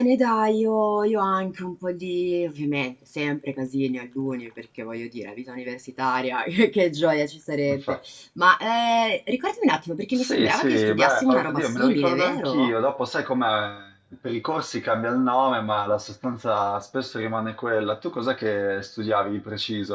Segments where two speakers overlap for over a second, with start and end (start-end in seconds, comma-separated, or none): 10.1-12.7